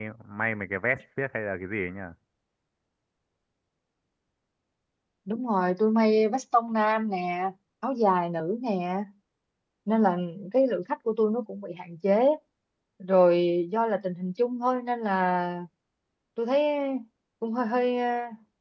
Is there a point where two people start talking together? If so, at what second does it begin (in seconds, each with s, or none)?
none